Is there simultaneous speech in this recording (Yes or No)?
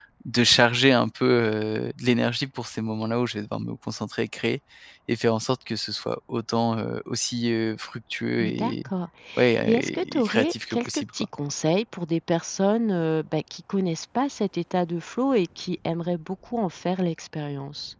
Yes